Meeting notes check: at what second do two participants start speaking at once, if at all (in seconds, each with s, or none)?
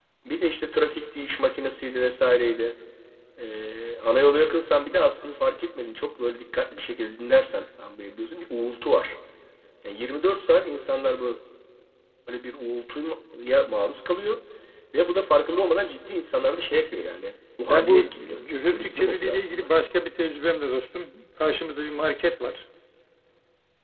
17.7 s